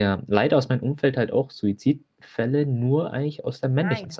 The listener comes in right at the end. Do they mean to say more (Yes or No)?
No